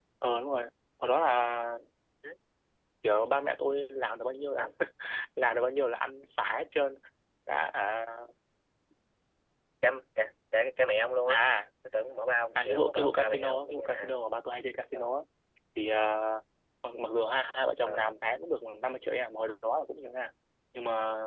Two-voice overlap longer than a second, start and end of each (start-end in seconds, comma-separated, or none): 12.6-14.2